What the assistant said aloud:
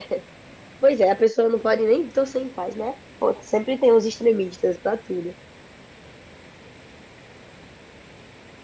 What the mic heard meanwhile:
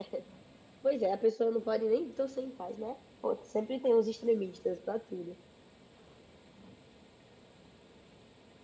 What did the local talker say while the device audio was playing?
none

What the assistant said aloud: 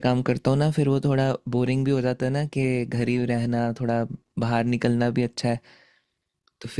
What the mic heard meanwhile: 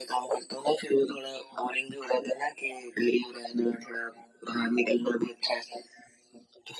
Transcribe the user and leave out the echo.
none

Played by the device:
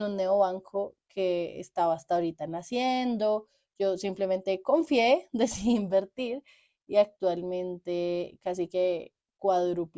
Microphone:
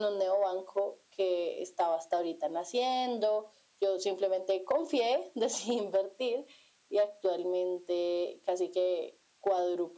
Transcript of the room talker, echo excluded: none

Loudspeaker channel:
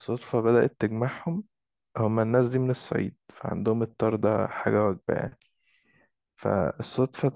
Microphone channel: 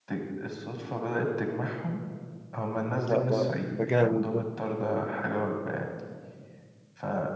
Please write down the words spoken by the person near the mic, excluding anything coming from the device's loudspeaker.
لا ده ده جامد ده

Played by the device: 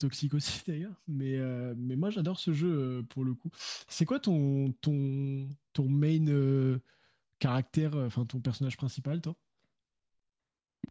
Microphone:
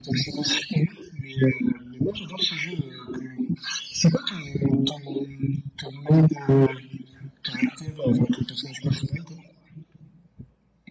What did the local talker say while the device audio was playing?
none

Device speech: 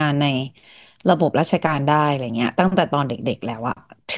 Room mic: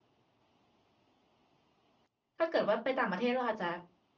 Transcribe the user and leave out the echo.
ถ้าเกิดว่าไปต่างประเทศเราอาจจะ

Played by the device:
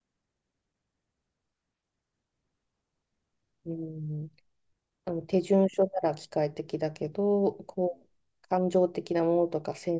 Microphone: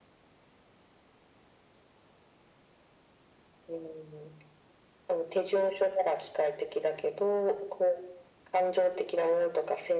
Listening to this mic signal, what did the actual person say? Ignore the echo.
none

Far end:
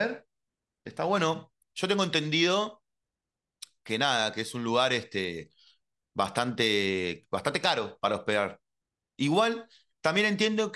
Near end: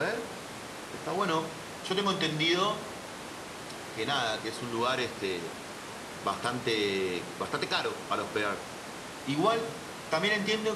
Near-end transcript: none

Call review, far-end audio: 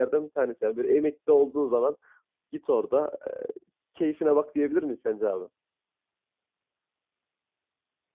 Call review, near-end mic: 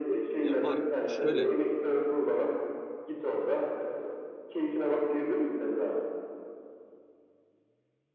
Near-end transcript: Ya var şöyle

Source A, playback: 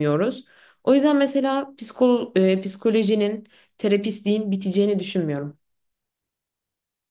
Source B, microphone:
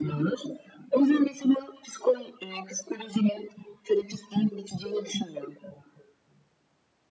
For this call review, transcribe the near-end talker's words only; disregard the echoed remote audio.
none

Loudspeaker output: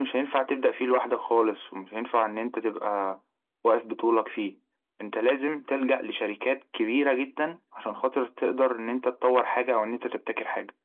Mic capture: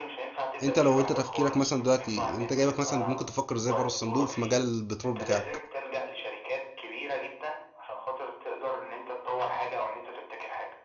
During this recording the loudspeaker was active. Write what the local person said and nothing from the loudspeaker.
انت لو انت تفكيرك مثلا دلوقتي انت جايبك مثلا ممكن تفكر ازاي بره الصندوق في مجال البترول بتاعك

